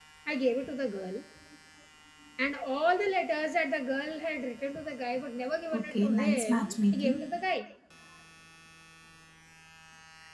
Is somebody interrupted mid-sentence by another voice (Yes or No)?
Yes